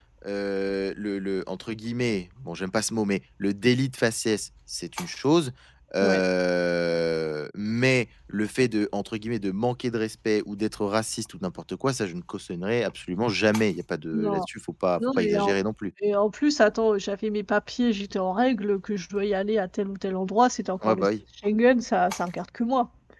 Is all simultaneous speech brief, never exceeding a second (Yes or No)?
Yes